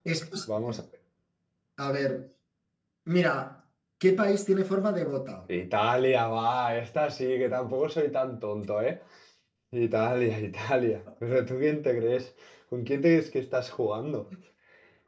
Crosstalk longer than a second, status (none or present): none